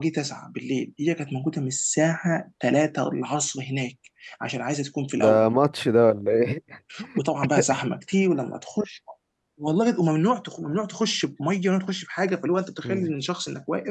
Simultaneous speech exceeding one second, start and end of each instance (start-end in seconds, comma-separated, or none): none